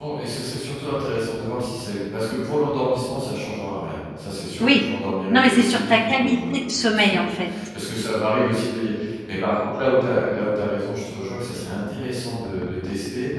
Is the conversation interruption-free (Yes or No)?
No